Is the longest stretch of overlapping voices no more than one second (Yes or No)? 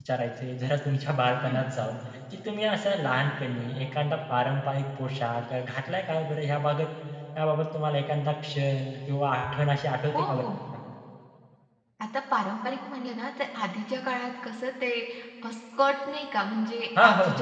Yes